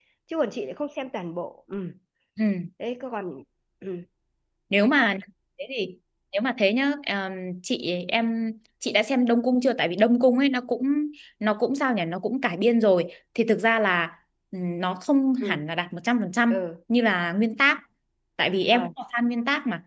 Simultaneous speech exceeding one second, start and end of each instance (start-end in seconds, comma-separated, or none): none